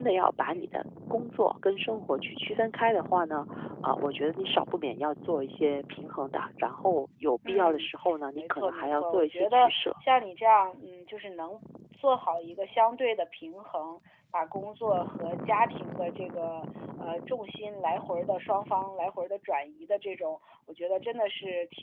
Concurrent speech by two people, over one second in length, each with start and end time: 8.3-9.9

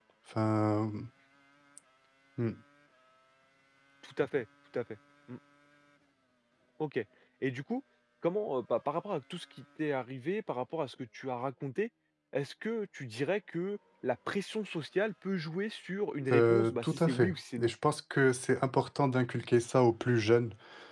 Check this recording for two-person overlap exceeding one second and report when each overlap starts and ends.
16.3-17.7

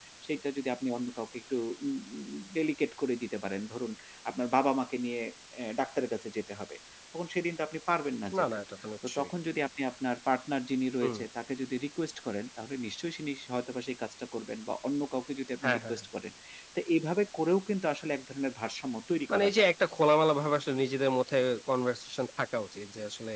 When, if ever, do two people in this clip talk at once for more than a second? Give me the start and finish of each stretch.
none

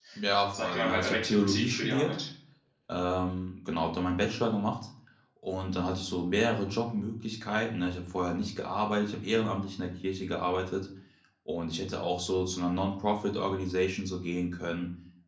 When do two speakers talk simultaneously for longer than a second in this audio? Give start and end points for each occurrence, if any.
0.5-2.2

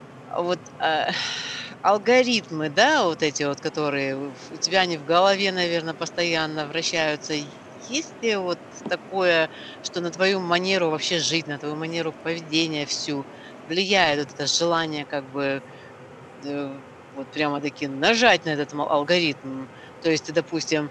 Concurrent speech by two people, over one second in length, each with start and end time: none

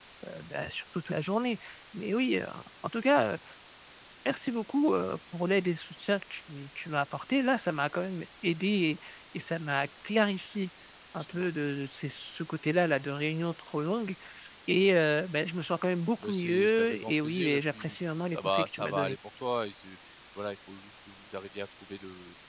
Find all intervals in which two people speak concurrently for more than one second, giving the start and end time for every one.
16.2-19.1

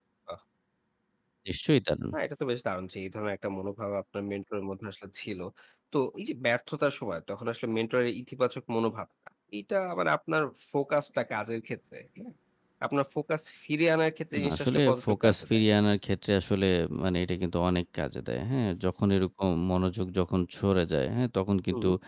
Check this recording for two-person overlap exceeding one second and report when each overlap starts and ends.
14.3-15.6

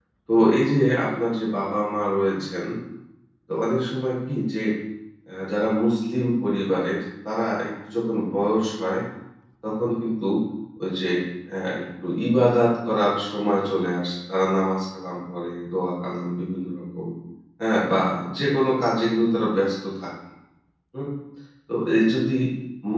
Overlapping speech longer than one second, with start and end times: none

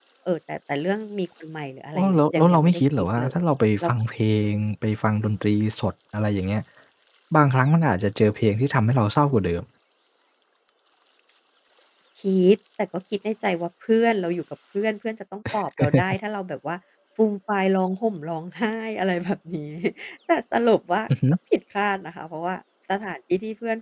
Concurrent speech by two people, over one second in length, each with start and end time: 1.9-3.4

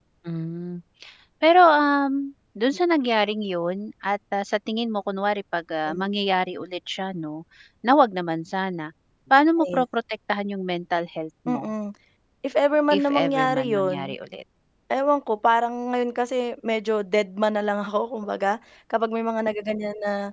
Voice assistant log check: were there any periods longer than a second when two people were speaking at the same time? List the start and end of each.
12.9-14.2

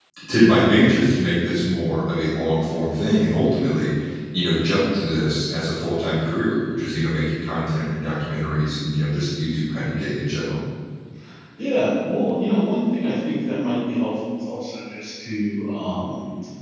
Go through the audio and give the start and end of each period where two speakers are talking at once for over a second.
none

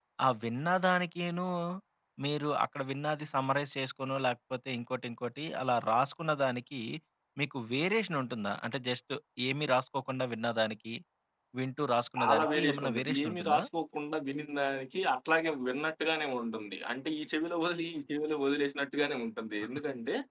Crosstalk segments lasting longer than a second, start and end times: 12.2-13.6

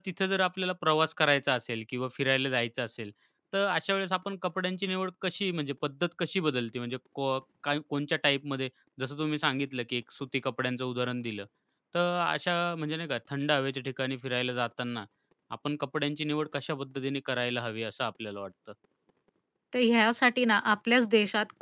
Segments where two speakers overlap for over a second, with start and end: none

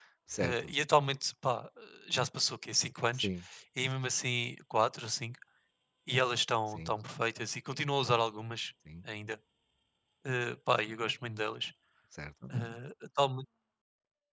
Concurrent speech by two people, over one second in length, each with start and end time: none

